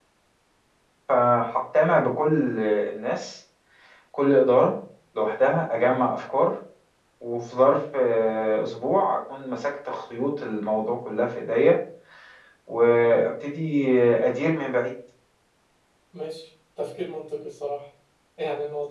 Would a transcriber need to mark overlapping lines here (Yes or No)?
No